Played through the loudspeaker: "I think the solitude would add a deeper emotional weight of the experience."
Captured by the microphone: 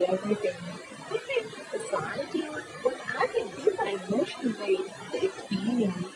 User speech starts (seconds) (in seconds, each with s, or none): none